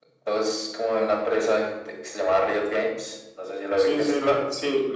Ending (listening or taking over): taking over